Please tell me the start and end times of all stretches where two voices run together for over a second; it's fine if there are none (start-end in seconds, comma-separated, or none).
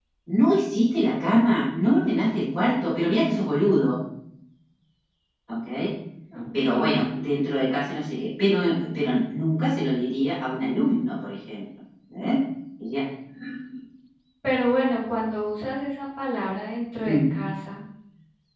none